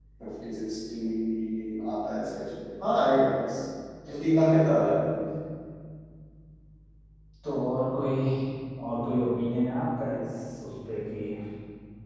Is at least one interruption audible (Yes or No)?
No